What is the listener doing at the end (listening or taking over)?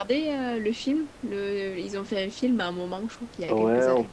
taking over